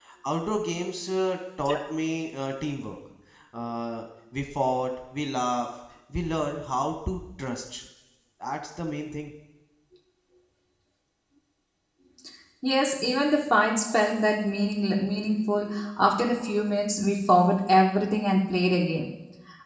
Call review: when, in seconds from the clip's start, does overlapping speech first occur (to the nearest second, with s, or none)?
none